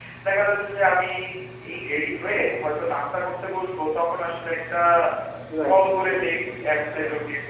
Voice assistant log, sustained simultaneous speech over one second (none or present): present